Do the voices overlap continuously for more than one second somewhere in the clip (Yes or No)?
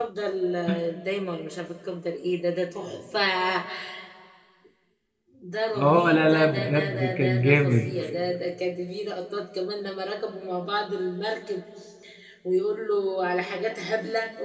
Yes